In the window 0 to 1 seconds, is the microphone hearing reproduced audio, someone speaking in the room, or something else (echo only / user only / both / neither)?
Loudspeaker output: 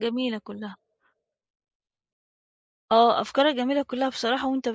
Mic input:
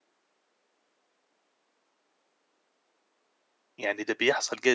neither